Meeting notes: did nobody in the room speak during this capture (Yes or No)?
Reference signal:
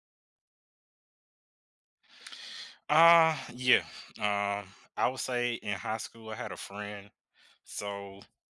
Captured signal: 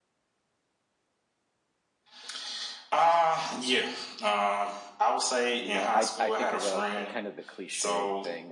No